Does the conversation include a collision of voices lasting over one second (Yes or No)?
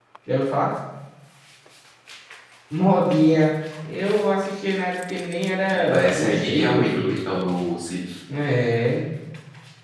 Yes